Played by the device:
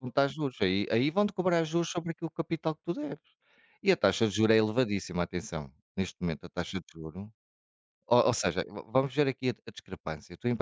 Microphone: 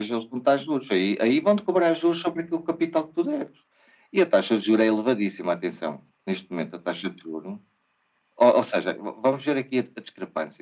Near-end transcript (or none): none